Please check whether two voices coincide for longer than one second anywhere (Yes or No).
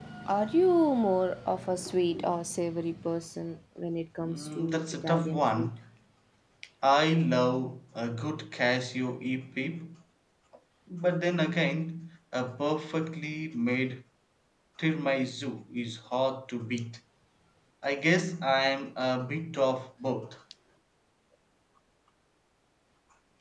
Yes